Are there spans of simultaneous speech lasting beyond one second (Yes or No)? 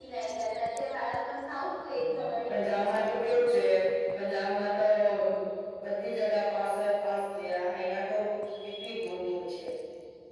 Yes